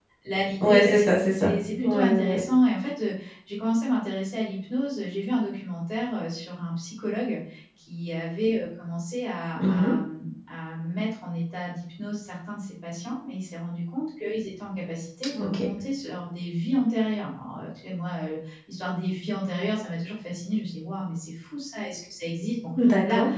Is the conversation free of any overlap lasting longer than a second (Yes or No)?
No